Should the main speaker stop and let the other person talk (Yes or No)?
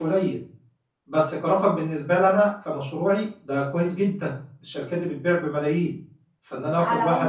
Yes